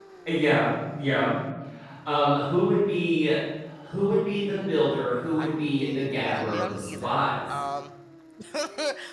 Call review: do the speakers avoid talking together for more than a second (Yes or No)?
No